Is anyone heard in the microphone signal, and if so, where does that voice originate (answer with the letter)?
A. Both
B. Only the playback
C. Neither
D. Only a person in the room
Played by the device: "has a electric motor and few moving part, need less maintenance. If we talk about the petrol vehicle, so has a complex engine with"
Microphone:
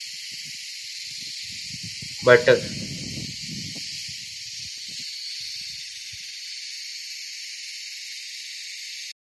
D